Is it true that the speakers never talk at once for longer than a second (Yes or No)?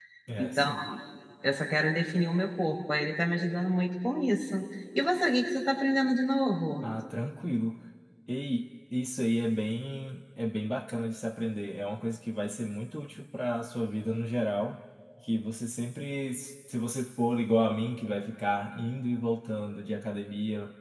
Yes